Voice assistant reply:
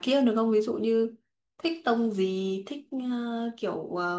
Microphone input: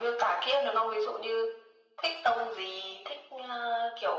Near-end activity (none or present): none